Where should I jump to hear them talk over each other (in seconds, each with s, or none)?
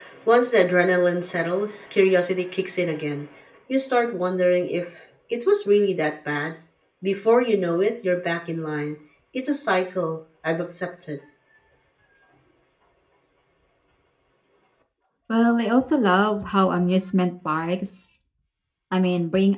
none